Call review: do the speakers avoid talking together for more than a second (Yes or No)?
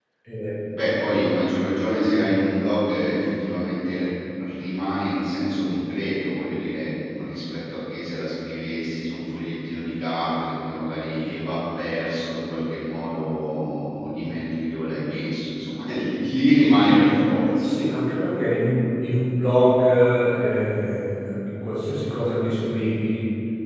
Yes